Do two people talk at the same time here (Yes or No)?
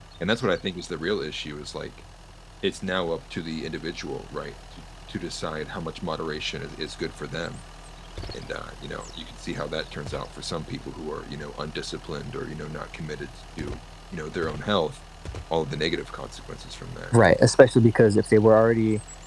No